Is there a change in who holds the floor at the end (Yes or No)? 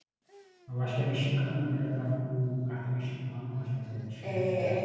Yes